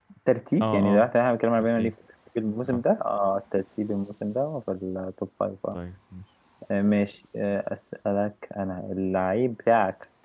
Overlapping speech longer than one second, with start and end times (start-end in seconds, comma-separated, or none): none